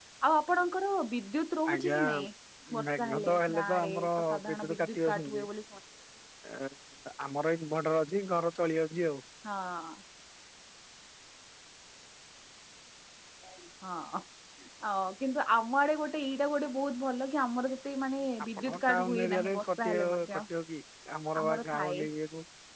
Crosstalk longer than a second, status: present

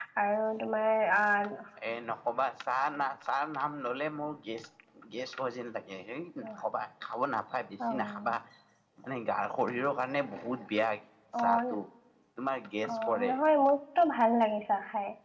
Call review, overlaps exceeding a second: none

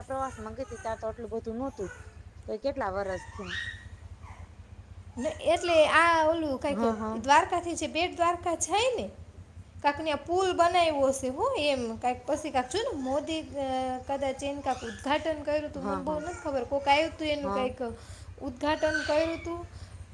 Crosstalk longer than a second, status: none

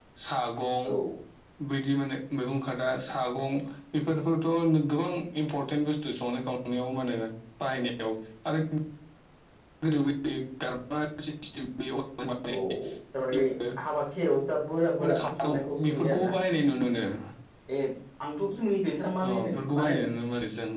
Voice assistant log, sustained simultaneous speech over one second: present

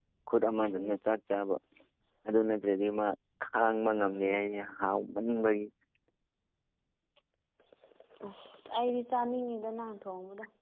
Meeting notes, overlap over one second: none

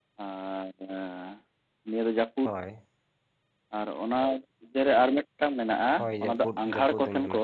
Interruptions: present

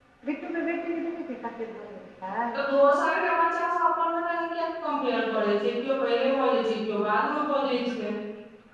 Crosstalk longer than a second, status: none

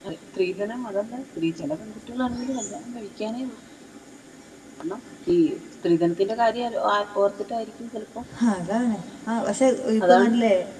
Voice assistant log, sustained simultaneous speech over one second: none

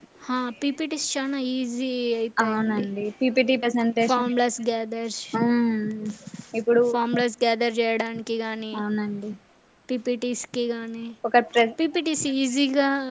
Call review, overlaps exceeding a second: none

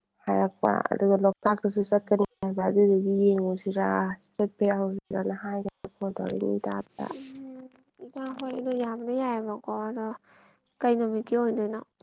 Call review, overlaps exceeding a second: none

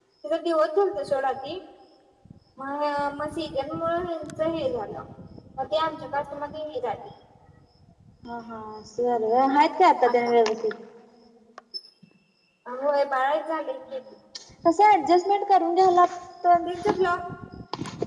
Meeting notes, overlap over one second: none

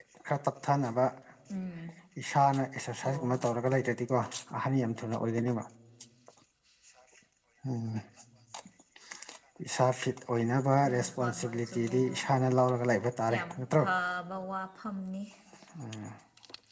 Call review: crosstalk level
present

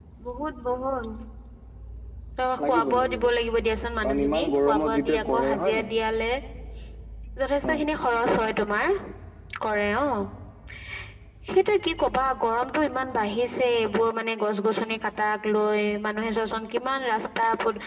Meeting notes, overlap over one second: present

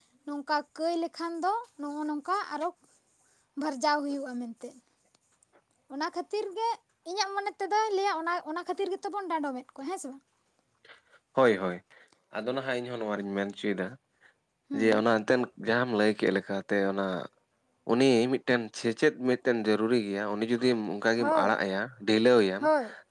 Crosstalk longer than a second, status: none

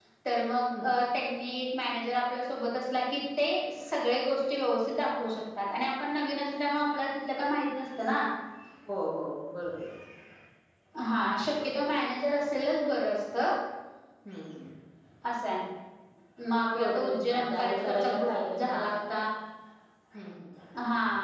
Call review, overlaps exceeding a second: present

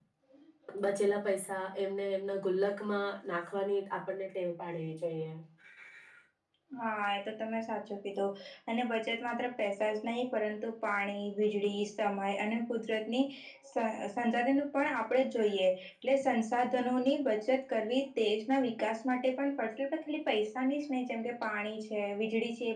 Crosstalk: none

